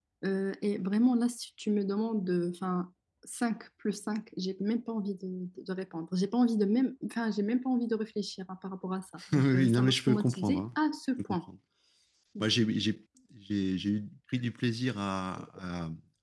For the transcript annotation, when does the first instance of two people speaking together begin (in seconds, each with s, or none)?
9.2 s